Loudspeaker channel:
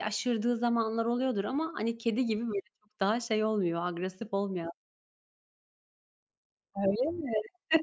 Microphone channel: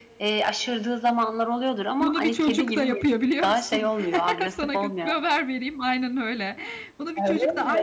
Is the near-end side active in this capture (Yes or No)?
Yes